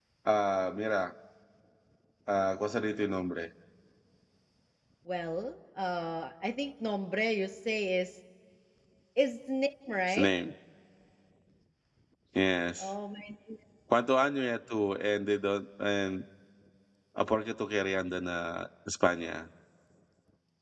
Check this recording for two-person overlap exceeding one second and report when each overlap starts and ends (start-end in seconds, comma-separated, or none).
none